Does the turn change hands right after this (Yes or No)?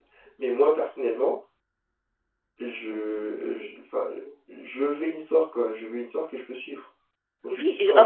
Yes